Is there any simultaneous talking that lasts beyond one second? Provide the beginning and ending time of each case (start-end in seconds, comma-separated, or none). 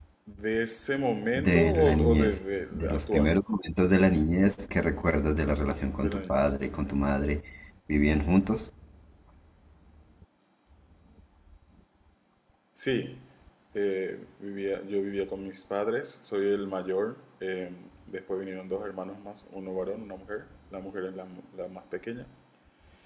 1.4-3.3